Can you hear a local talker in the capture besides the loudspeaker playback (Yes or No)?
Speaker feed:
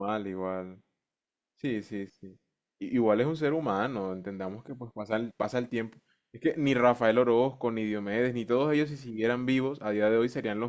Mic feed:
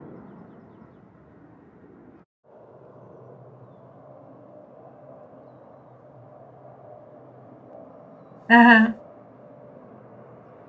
Yes